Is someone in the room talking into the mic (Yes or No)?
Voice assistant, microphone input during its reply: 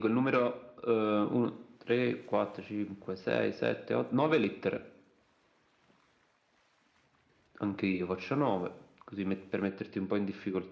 No